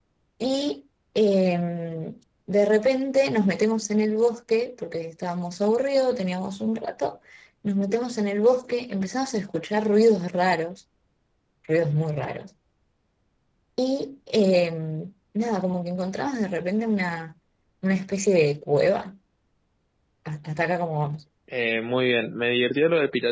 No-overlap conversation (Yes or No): Yes